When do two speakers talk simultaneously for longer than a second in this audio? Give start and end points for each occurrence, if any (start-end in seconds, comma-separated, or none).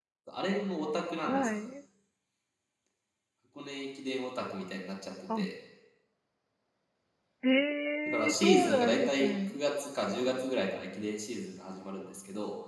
8.1-9.6